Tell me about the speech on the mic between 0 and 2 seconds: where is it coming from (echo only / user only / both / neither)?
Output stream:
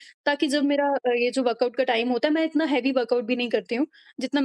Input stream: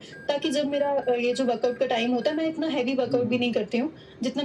echo only